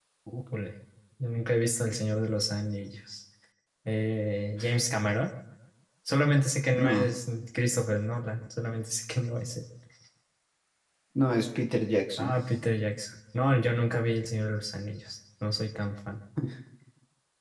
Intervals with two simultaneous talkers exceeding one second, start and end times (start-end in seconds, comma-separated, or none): none